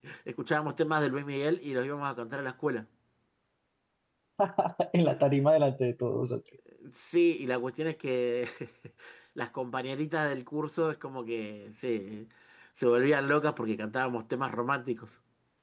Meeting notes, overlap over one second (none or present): none